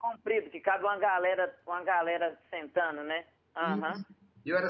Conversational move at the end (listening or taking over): taking over